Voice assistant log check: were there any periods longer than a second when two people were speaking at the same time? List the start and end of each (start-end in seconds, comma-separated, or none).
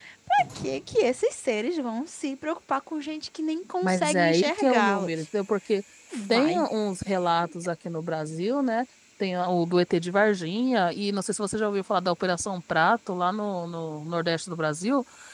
3.8-5.2